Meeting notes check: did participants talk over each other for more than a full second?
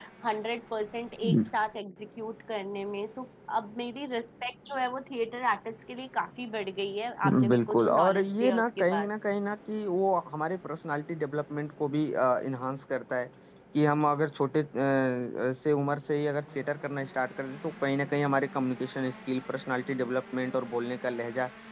Yes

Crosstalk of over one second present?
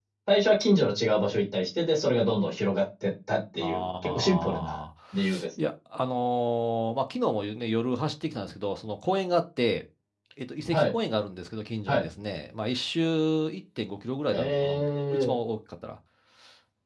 Yes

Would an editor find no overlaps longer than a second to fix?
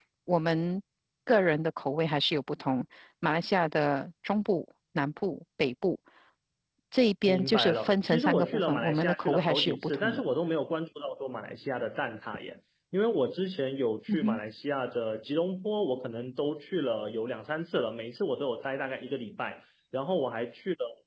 No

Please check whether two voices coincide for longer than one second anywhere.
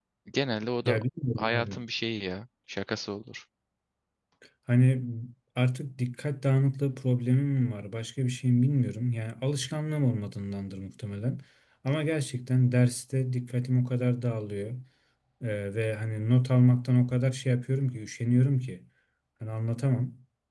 No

